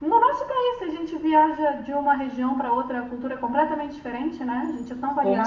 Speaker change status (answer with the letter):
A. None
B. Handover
B